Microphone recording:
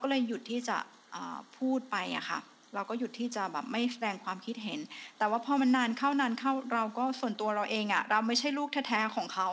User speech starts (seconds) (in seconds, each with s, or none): none